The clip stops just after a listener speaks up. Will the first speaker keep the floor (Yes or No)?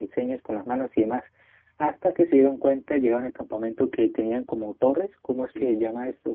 Yes